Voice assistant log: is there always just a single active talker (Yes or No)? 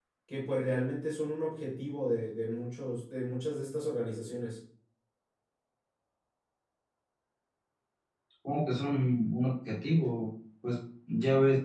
Yes